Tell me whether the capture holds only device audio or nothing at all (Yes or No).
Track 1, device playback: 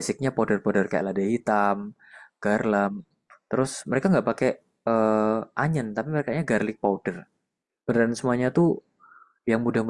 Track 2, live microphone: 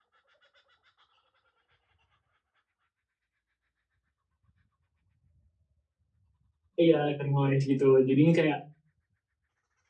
No